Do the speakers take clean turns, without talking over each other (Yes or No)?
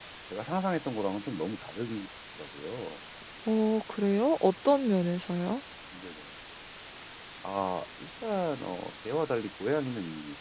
Yes